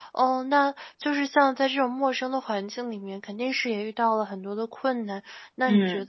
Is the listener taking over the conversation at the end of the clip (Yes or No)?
No